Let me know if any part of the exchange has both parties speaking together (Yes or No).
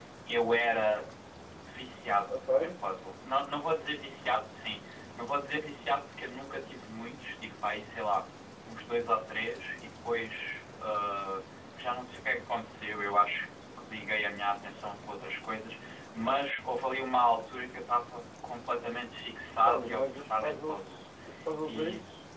Yes